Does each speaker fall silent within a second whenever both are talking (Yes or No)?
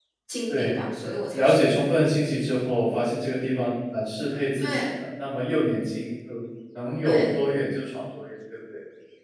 Yes